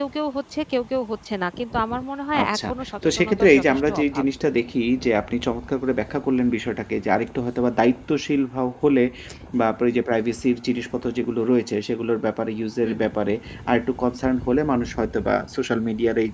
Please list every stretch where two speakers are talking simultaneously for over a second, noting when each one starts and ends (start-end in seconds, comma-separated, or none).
3.0-4.2